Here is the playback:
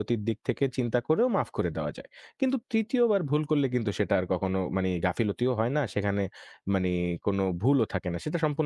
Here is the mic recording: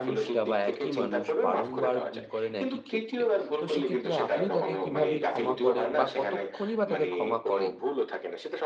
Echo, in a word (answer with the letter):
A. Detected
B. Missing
A